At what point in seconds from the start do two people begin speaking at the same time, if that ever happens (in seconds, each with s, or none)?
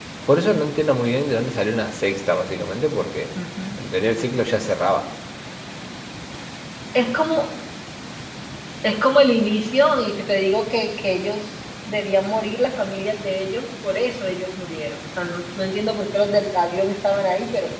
none